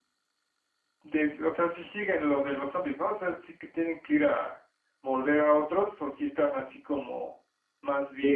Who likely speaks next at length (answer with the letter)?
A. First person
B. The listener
B